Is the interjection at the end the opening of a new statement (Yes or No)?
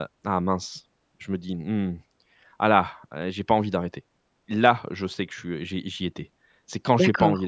No